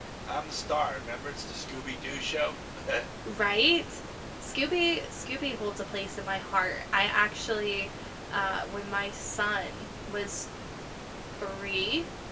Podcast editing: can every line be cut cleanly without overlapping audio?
Yes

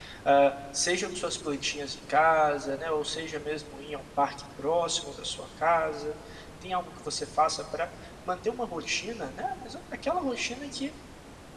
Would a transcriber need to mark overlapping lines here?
No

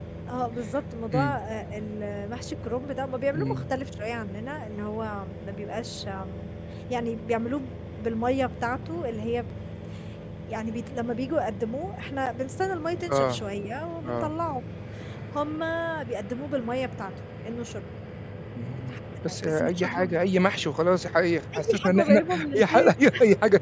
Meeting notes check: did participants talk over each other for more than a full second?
Yes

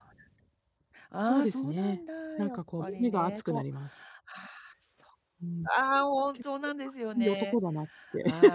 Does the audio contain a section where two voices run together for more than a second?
Yes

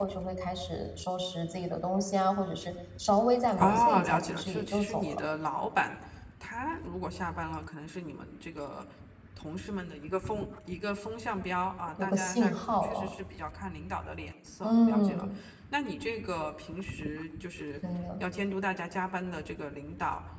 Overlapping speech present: Yes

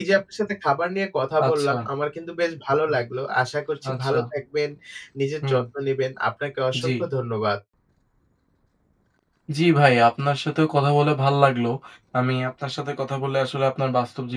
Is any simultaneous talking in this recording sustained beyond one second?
No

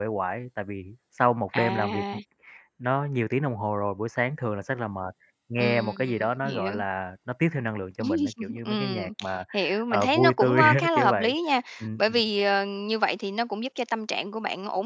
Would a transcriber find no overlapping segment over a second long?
No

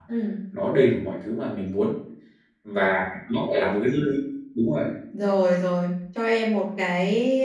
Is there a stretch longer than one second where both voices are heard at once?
No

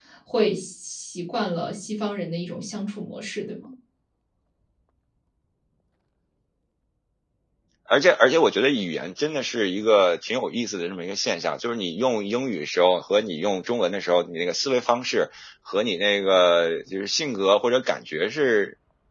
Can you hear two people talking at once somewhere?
No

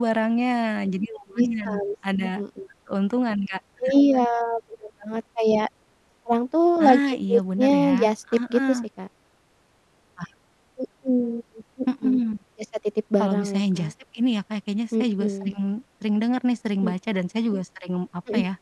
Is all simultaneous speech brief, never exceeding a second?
No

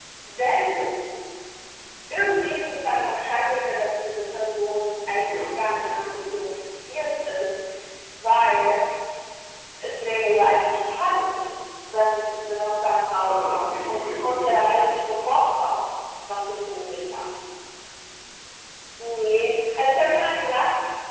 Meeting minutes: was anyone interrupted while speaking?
Yes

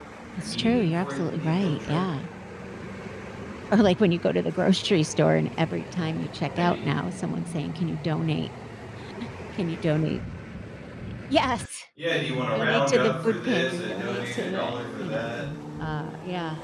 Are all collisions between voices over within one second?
No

